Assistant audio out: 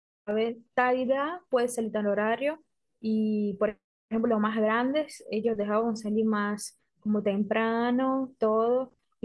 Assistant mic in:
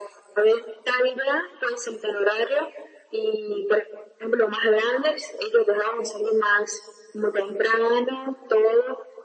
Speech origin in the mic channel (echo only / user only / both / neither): echo only